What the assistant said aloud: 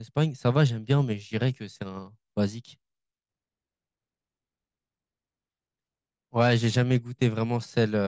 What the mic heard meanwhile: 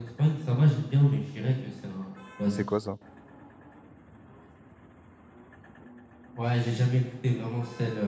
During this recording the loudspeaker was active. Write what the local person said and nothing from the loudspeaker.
c'est quoi ça?

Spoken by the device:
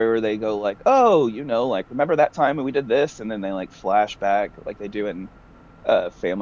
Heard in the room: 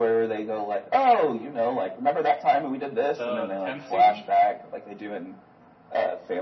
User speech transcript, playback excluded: The tenth season.

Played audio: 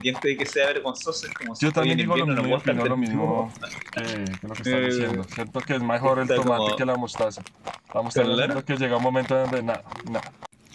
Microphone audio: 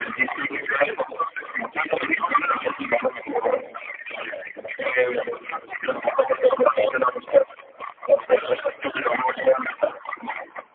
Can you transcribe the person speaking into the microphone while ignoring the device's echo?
none

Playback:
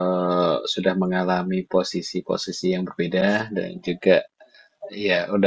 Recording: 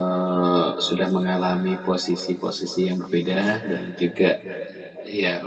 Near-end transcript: none

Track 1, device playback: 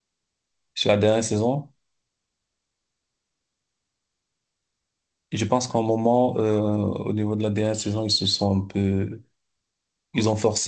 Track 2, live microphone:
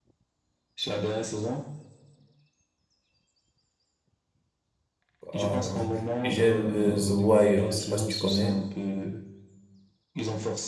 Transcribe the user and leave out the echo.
Ah là là. J'aime euh, The Wire. Je sais pas si tu connais.

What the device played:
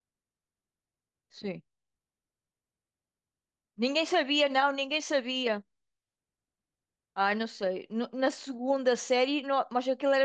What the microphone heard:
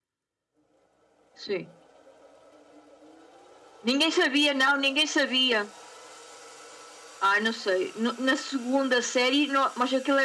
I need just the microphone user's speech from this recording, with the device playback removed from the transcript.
none

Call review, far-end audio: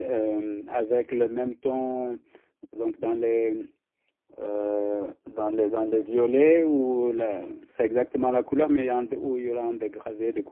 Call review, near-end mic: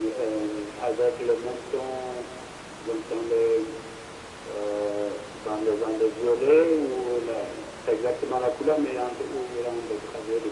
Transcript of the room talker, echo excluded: none

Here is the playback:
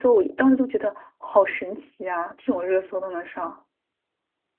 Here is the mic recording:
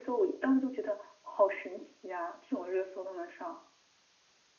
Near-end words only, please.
none

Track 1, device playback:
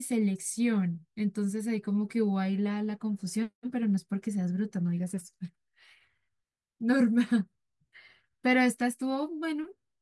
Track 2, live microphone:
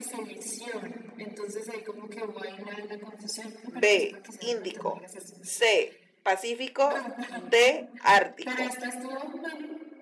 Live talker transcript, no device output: B. Índico. C. Pacífico. D. Ártico.

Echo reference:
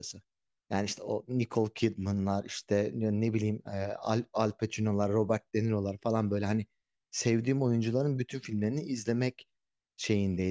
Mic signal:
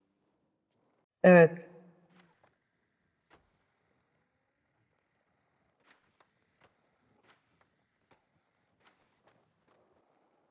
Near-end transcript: Evet.

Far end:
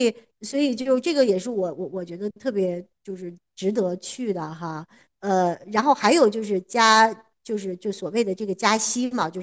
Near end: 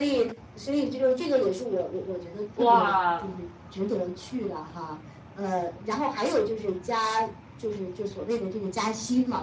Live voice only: 哇，

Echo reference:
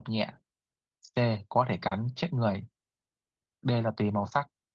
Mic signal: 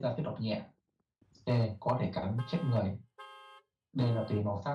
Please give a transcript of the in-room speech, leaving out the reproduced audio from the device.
none

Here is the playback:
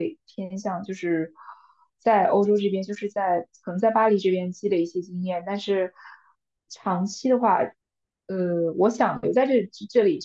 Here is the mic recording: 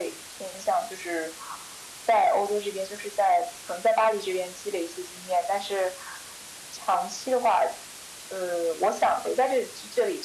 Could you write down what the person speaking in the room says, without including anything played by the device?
none

